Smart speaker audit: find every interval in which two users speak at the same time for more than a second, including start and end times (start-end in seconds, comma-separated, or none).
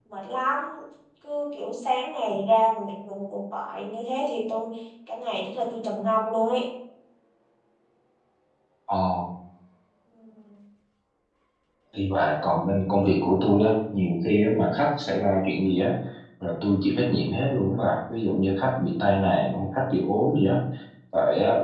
none